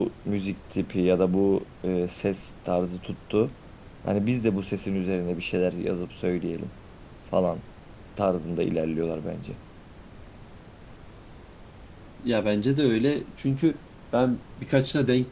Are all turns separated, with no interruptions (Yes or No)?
Yes